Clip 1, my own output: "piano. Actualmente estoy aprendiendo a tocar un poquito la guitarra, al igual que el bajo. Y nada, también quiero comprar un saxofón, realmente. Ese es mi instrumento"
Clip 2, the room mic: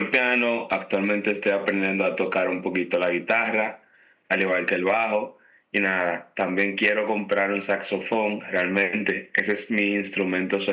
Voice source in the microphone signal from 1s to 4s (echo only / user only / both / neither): echo only